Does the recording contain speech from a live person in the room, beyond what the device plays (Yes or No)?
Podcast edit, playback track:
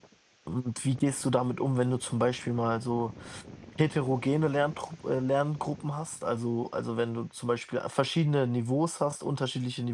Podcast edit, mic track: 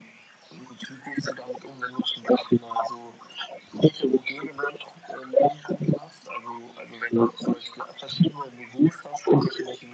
No